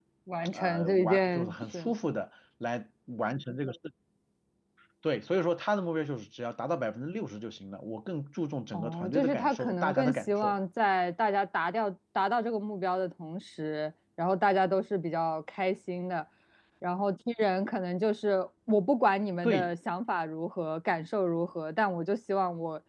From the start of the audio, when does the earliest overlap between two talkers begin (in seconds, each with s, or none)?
0.5 s